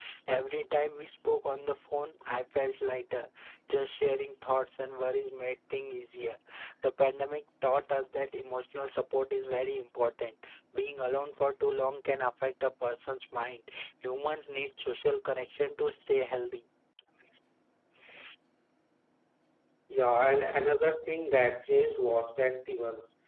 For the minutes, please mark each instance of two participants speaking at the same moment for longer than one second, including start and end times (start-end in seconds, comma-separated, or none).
none